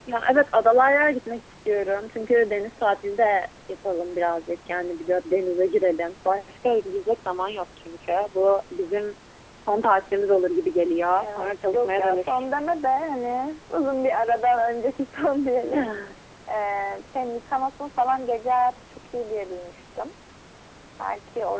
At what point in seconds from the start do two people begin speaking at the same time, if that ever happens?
11.2 s

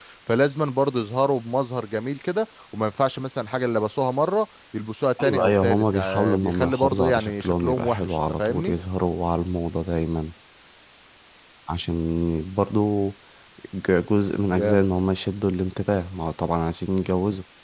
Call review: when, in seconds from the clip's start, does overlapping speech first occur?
5.2 s

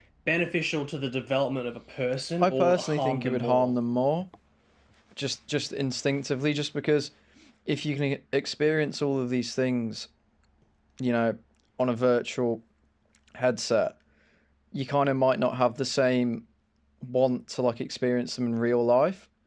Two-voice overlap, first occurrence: 2.4 s

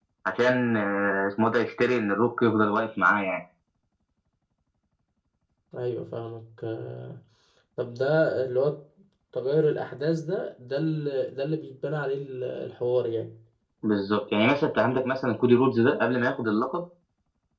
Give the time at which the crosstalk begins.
none

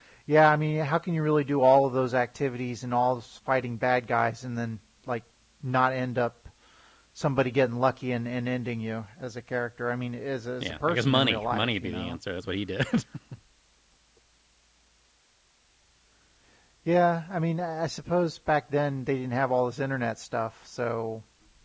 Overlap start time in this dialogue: 10.6 s

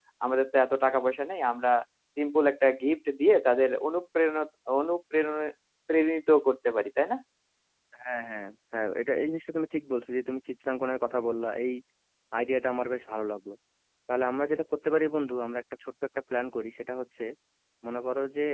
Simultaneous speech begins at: none

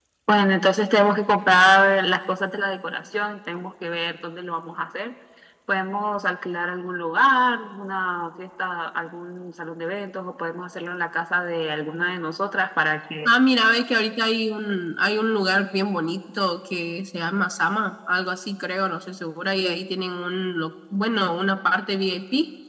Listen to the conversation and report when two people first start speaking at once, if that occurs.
none

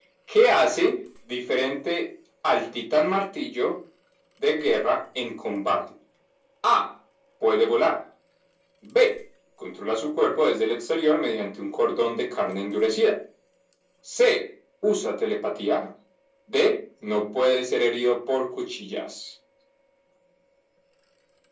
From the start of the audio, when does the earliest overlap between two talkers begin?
none

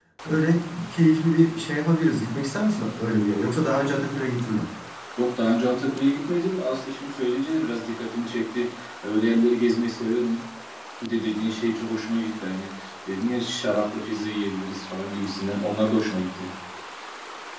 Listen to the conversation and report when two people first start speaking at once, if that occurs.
none

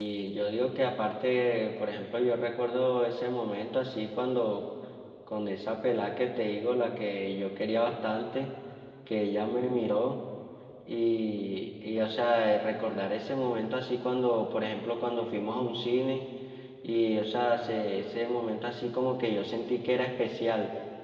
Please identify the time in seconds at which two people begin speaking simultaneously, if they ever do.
none

